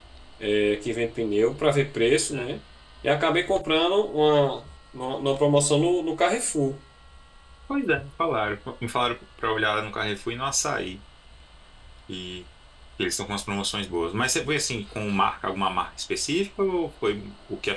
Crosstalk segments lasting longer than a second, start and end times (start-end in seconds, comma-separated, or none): none